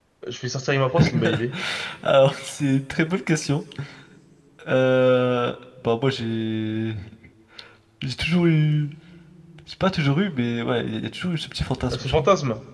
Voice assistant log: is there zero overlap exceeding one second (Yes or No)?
Yes